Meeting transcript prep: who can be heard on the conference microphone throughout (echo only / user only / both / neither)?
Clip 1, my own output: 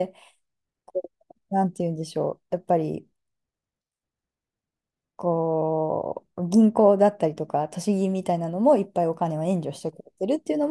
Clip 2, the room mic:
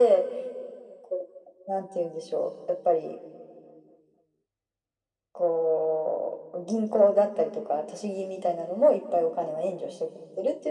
echo only